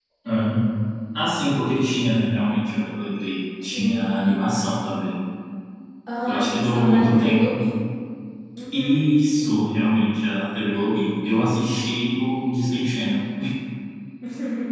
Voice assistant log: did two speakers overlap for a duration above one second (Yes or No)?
Yes